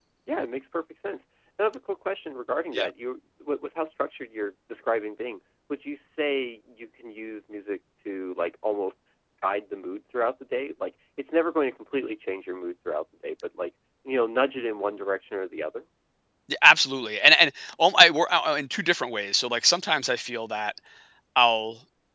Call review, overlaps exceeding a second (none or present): none